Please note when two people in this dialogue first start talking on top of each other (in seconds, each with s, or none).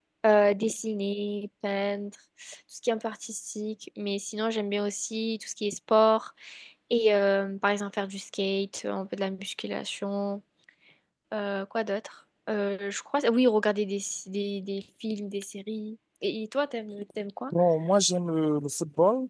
none